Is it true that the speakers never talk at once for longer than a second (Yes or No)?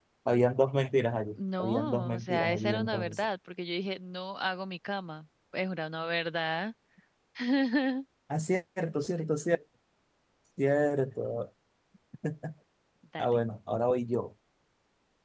No